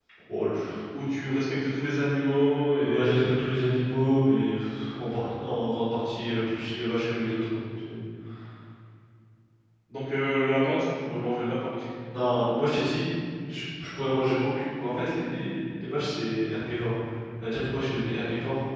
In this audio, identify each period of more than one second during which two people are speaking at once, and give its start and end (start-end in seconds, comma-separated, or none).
none